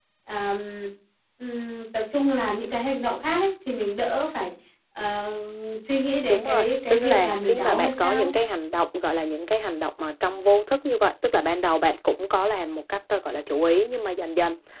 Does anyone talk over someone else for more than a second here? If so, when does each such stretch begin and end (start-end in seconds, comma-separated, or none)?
6.3-8.3